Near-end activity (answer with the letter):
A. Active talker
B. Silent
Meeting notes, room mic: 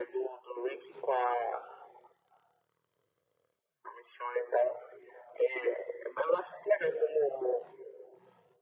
B